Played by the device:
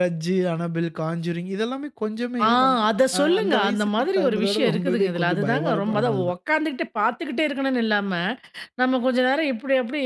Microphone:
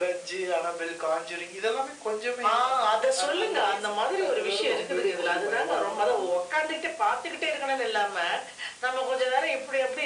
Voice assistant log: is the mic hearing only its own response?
Yes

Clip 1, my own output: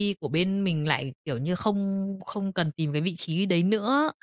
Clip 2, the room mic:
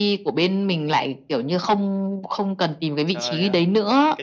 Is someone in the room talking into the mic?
Yes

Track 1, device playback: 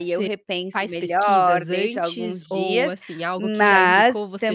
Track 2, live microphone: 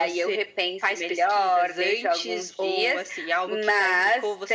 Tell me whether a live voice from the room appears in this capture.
No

